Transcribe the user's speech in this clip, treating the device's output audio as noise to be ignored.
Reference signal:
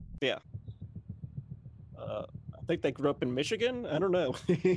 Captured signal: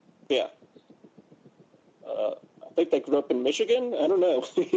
none

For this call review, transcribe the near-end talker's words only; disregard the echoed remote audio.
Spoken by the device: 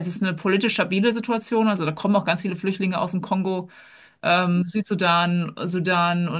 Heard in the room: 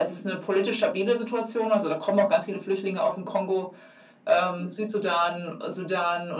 none

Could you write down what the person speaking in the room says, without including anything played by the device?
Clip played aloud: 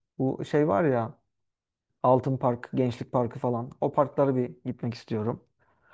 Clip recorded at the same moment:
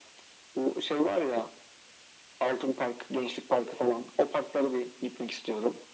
none

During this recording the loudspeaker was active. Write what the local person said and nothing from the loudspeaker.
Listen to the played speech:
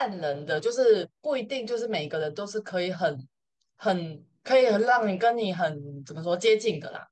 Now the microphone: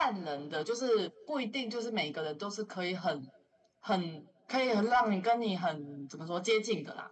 none

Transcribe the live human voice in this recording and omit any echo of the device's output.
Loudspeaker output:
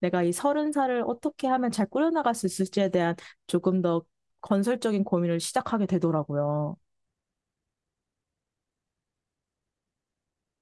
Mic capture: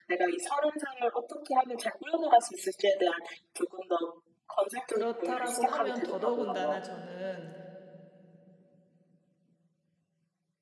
그렇다라고 하면 더더군다나 저는

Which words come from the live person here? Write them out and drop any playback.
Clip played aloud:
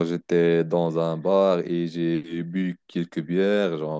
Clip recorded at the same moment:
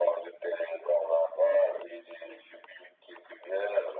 none

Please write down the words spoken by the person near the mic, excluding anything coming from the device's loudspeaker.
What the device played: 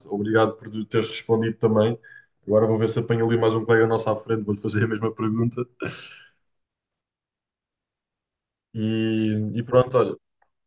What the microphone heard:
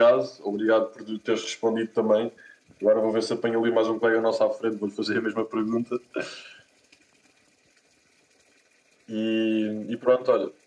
none

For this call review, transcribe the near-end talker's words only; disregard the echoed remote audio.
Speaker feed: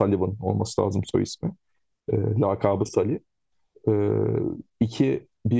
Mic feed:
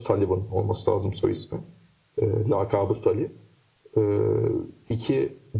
none

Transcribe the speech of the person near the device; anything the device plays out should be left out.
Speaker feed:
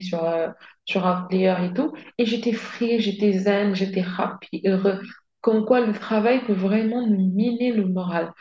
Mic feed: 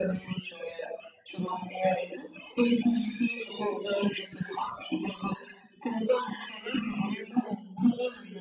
none

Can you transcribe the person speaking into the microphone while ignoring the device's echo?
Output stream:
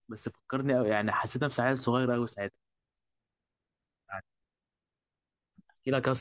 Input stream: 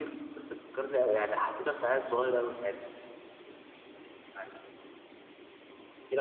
none

